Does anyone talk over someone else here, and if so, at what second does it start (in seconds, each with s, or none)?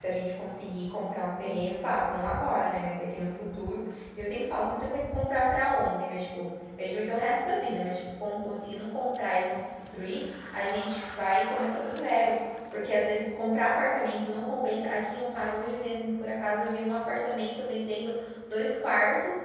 none